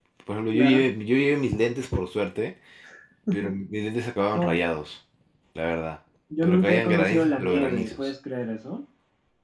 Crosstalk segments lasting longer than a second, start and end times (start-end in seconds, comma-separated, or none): 6.4-8.1